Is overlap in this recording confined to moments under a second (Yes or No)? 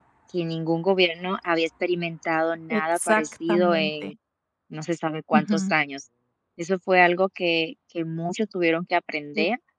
No